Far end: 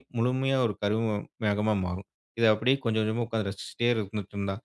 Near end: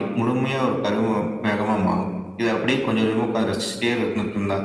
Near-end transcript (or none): none